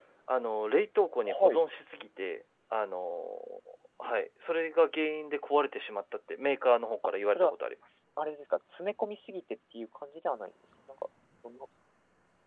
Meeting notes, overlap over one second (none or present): none